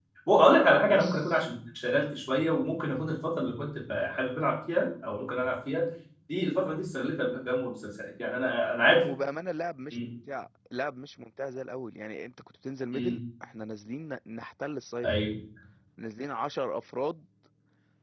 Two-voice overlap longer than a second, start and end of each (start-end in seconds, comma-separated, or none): none